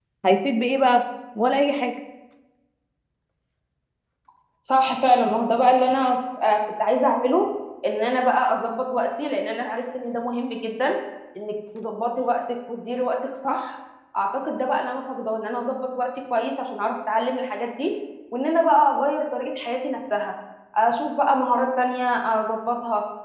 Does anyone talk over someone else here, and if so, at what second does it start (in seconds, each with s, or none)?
none